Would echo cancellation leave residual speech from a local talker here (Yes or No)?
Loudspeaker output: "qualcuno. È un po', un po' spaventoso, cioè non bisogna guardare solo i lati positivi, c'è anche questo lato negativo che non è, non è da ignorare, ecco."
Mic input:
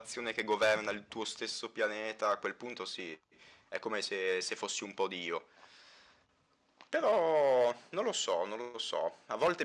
Yes